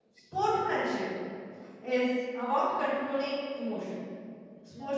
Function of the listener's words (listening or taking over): listening